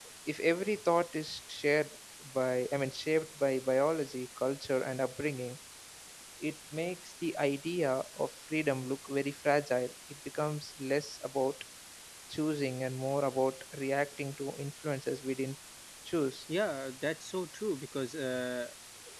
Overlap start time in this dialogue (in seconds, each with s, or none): none